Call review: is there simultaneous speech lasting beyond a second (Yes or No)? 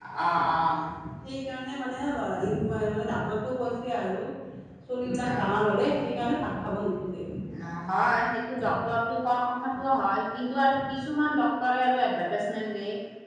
No